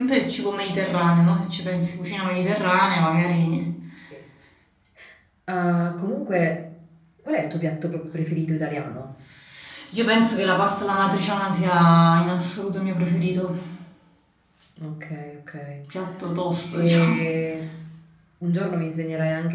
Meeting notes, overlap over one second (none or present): none